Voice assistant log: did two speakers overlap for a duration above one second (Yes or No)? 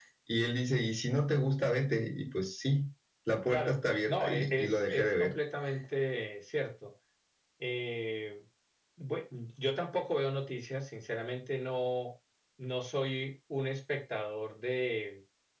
Yes